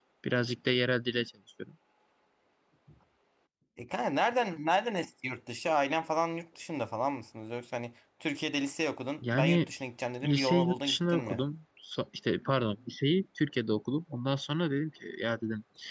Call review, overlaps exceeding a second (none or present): present